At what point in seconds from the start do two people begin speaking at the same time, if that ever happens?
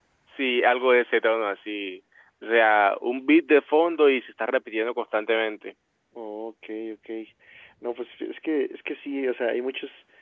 none

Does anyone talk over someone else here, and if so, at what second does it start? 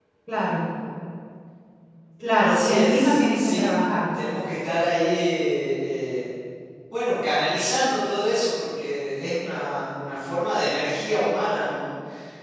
2.4 s

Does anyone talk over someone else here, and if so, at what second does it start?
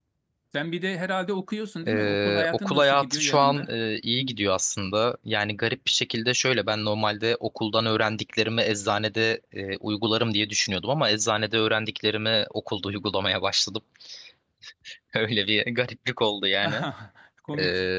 1.9 s

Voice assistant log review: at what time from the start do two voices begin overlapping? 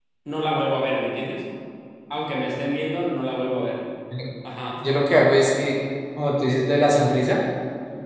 none

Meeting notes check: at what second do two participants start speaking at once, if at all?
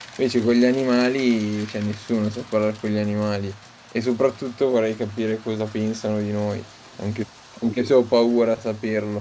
none

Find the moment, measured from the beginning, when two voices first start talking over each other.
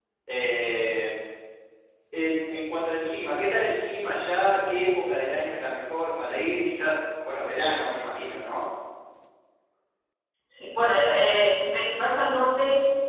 none

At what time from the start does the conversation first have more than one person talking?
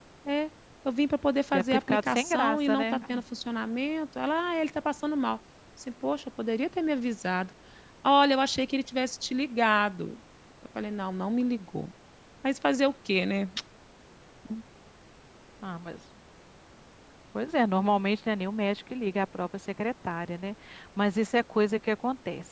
1.5 s

